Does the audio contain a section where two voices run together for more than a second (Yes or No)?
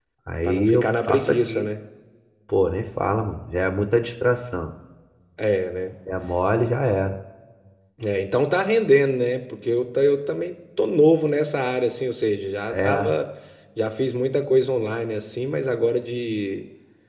Yes